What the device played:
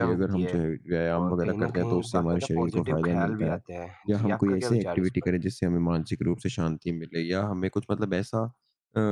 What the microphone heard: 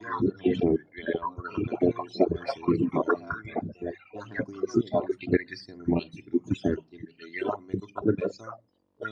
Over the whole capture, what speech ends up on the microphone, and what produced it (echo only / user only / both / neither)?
echo only